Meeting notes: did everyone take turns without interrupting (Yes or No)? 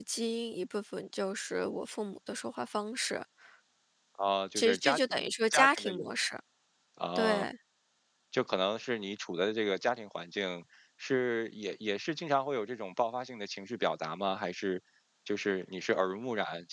No